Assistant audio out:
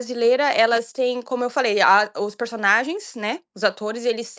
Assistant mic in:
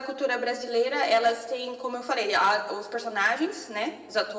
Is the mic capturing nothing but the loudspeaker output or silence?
Yes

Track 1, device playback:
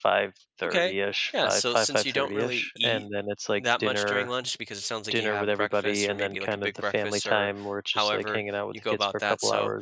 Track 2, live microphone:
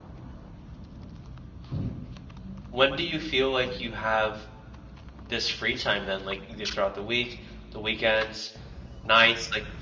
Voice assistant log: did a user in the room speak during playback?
Yes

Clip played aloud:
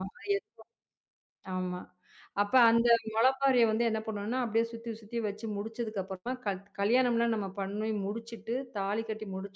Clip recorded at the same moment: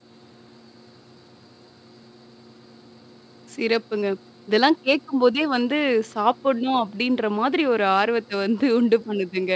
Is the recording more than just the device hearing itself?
Yes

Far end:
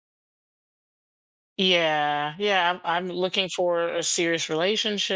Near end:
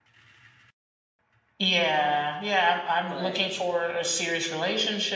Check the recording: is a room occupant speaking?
Yes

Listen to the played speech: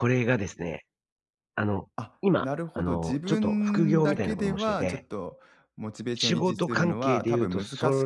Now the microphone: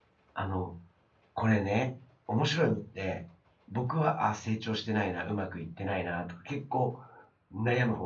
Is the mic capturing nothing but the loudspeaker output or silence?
No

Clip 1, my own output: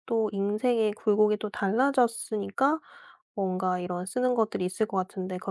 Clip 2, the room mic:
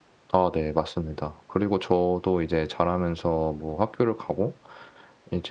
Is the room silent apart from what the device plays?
No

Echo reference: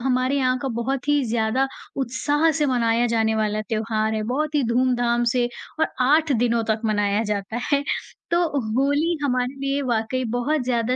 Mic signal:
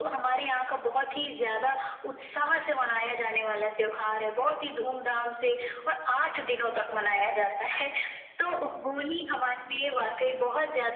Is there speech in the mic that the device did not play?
No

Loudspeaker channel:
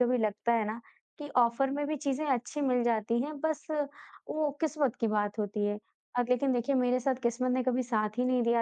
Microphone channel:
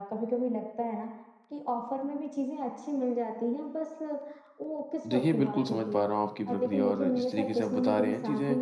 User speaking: Yes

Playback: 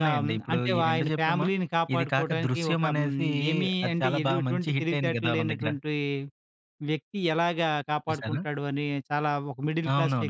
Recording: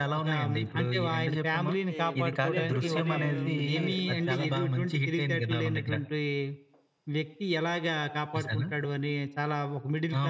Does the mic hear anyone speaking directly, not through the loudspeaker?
Yes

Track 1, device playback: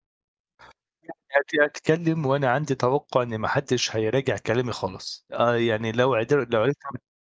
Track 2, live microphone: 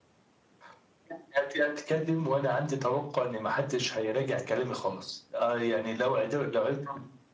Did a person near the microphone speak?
No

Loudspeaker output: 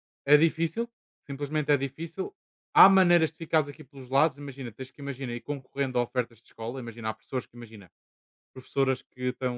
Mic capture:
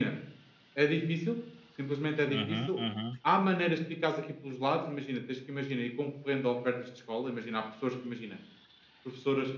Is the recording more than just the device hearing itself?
Yes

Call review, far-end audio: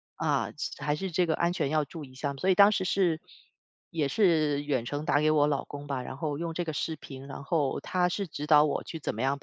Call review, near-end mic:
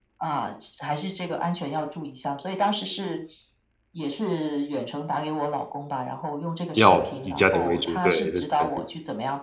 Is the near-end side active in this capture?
Yes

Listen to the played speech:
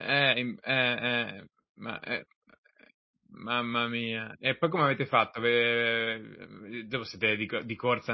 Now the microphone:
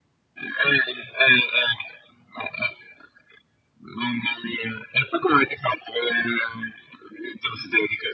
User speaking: No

